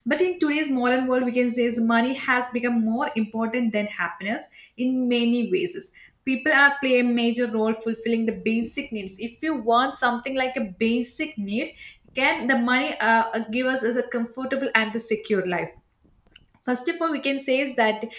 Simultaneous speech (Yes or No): No